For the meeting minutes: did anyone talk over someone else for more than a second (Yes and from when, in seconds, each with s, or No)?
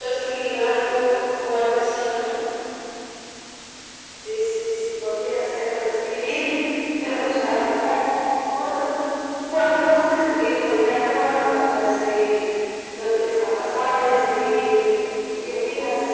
No